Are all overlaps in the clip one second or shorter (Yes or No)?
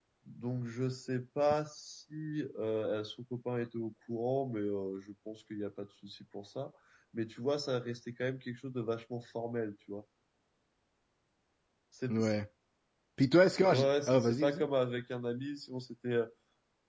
Yes